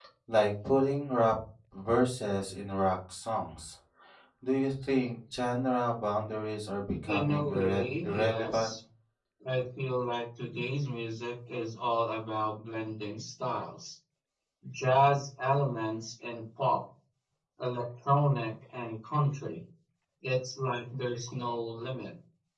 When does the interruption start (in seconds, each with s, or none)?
7.1 s